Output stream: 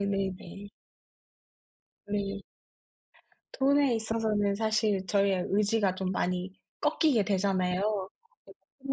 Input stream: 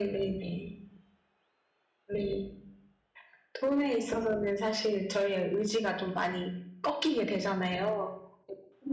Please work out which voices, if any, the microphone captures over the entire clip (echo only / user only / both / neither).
echo only